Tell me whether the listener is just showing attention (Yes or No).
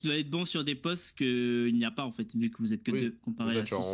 No